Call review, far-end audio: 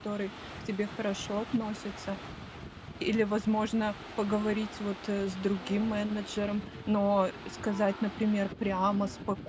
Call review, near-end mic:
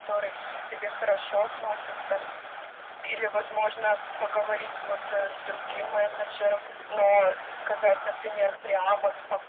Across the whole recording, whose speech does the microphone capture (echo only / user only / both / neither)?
echo only